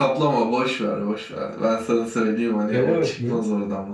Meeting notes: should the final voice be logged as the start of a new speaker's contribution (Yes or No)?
No